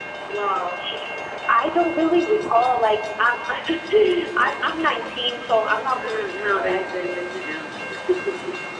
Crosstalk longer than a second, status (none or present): present